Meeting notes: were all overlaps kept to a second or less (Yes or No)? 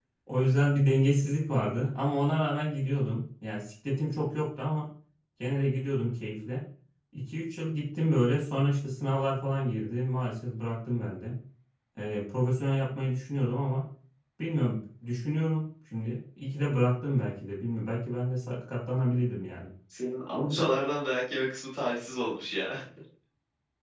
Yes